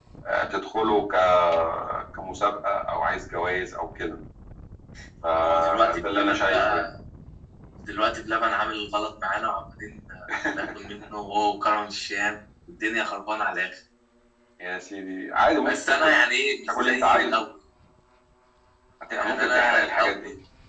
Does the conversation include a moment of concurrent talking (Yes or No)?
Yes